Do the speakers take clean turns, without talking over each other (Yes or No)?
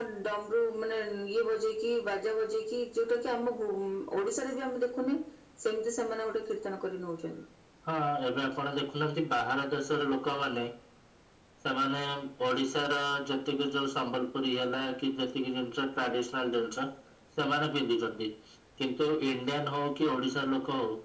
Yes